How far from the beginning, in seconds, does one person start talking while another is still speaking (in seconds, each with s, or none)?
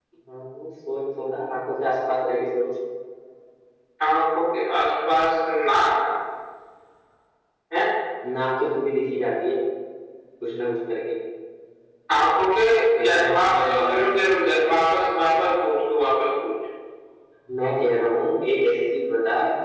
12.9 s